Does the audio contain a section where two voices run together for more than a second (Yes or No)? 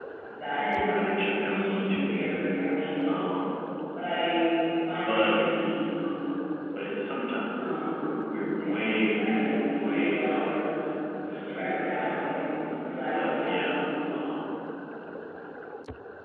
Yes